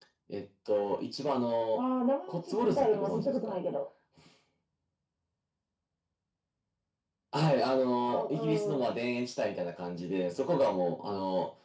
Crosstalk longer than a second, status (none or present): present